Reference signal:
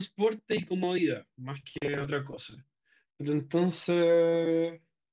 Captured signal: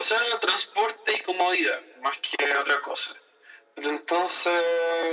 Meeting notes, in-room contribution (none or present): none